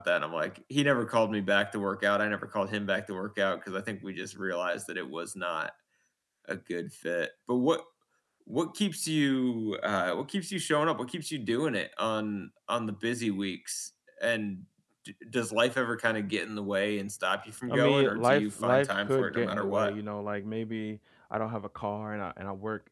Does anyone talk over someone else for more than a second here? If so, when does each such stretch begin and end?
17.7-19.9

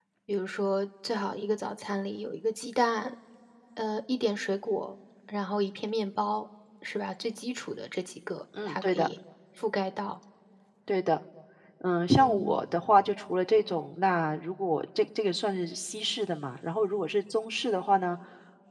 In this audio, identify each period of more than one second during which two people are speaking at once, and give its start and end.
none

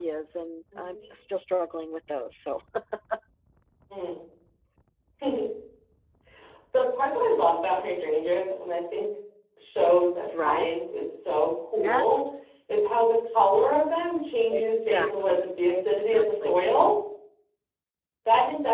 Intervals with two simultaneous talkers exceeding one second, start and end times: 14.5-16.6

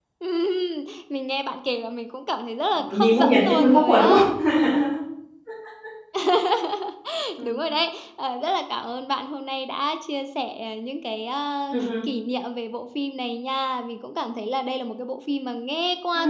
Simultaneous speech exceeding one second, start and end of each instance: 2.9-4.2

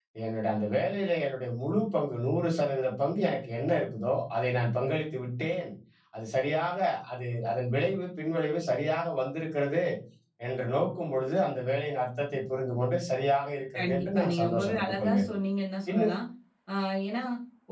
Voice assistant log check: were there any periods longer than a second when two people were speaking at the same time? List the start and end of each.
13.8-15.2

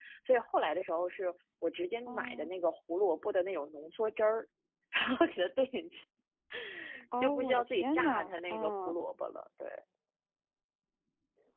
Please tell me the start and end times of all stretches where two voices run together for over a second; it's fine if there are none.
7.2-9.0

